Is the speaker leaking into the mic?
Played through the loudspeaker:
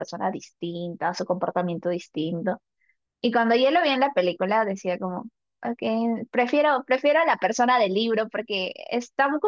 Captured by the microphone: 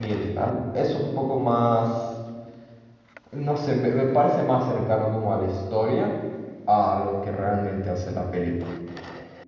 No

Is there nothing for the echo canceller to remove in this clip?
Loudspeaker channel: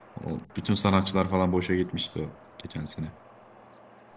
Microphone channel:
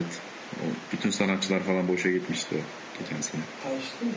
No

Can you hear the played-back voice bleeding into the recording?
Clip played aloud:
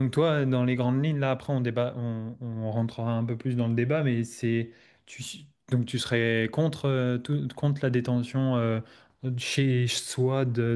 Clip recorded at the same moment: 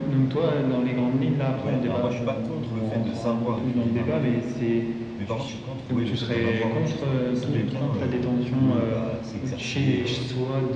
Yes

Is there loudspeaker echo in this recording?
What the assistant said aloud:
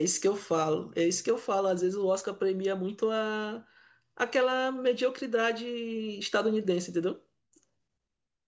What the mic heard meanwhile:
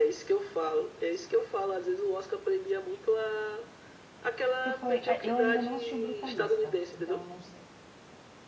Yes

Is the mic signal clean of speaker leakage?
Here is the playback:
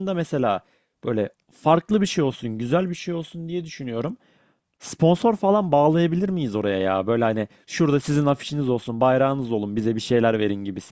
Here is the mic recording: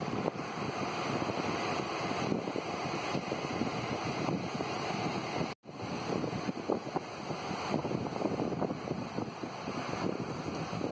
Yes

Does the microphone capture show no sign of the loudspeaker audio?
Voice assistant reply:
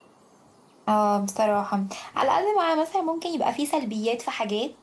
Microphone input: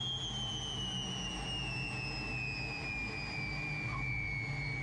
Yes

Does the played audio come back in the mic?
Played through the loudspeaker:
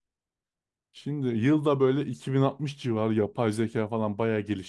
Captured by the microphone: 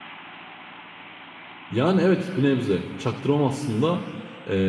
No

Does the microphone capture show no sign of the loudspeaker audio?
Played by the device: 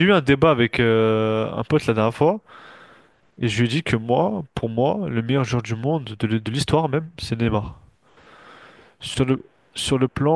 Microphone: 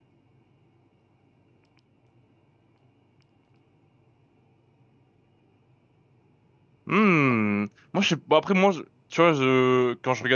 Yes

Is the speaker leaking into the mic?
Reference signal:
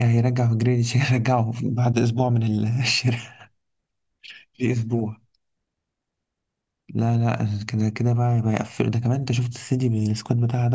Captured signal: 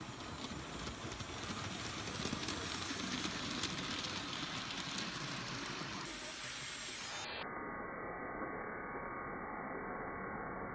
No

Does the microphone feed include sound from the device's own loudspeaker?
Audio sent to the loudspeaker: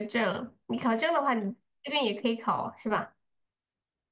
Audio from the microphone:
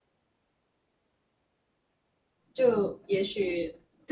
No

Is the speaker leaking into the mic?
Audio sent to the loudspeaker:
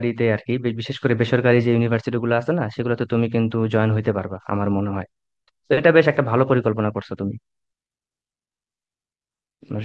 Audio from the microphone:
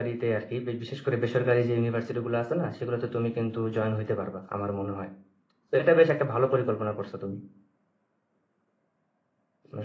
Yes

